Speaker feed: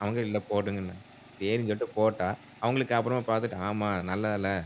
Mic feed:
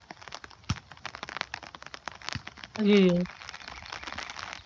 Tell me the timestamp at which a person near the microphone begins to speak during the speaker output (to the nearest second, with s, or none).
3 s